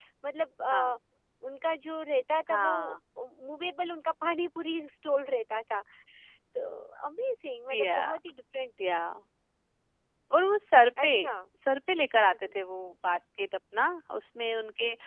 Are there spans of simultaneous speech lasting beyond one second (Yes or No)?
No